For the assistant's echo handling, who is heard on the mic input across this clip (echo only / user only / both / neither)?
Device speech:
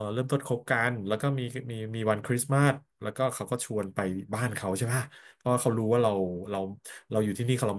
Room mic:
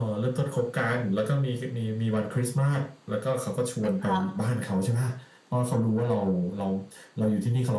both